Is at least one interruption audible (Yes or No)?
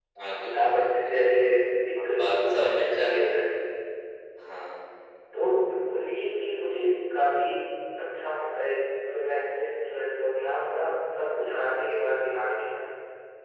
Yes